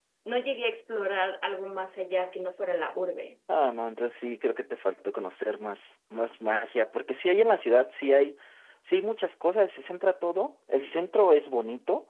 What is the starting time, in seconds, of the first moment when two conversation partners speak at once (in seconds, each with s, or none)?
none